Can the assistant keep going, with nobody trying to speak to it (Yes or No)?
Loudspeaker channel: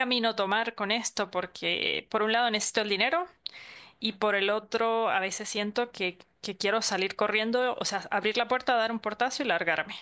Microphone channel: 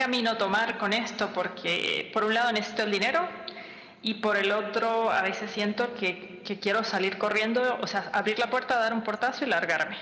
Yes